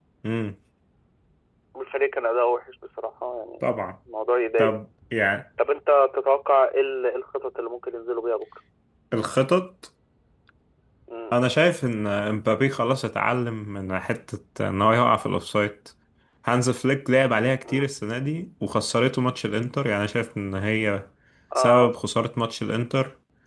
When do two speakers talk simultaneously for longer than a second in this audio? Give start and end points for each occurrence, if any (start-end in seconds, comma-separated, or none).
none